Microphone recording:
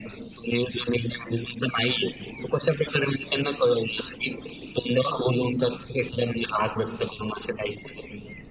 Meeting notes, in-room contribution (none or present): none